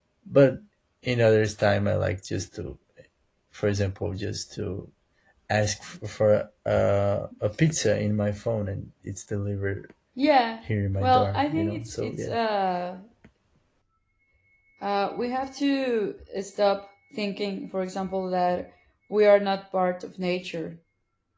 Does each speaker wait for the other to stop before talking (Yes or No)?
No